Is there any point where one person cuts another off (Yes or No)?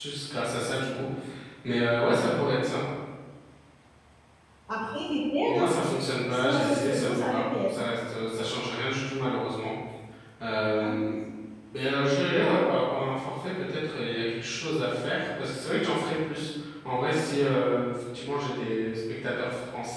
Yes